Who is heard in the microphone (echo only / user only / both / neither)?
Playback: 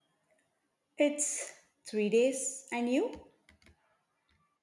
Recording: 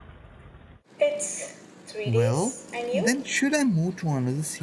both